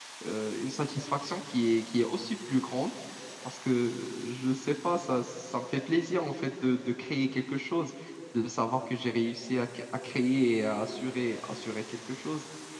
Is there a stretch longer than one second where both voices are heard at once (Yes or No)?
No